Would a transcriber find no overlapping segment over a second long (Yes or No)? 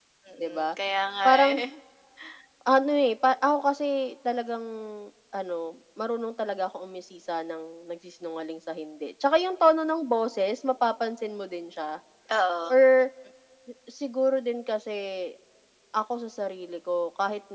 Yes